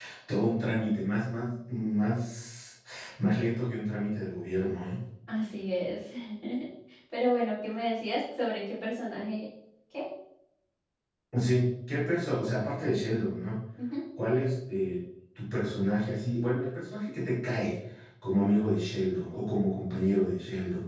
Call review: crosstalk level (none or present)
none